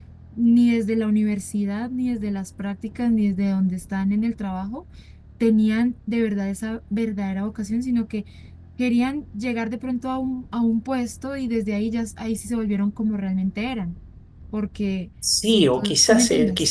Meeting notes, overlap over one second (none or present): present